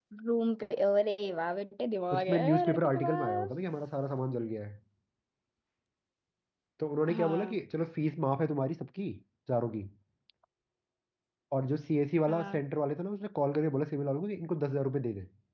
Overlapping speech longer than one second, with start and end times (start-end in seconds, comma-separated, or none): 2.1-3.5